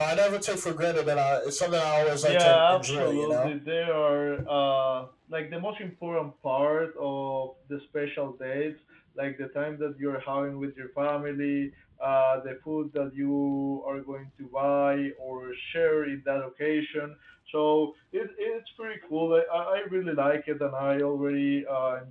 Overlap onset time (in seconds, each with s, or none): 2.2 s